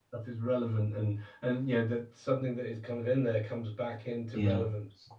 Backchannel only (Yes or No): No